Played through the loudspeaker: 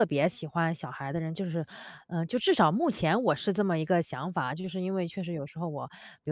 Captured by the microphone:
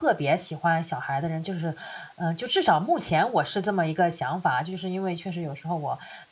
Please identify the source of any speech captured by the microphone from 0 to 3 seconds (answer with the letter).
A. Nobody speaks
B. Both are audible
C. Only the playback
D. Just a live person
C